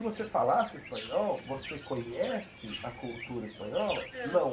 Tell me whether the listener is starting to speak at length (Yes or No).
No